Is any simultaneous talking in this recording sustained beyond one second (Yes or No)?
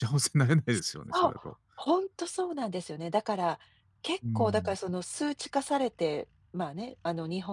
No